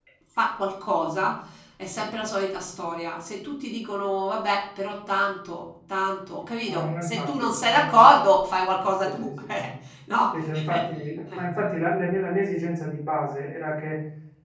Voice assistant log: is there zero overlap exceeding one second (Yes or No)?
No